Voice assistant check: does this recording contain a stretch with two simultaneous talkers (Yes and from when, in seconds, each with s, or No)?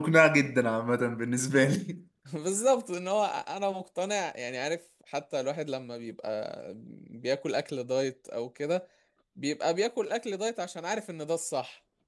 No